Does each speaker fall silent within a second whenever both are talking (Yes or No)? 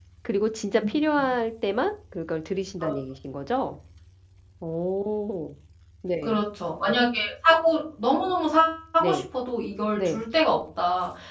Yes